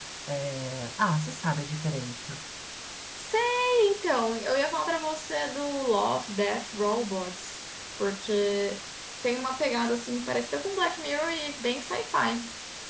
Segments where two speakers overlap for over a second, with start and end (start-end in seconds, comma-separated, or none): none